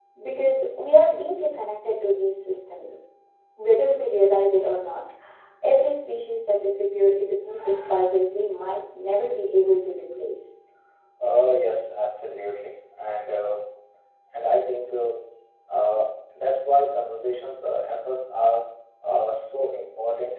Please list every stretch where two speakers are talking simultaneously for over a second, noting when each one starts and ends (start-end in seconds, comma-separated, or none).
none